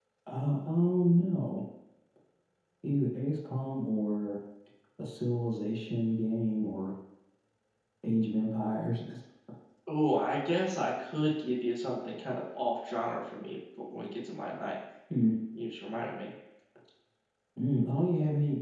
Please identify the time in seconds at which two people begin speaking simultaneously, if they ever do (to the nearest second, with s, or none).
none